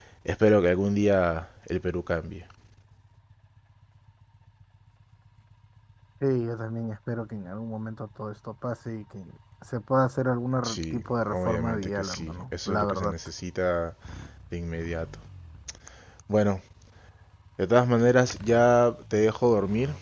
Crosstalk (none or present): present